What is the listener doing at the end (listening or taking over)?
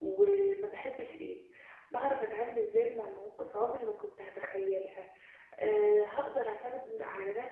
listening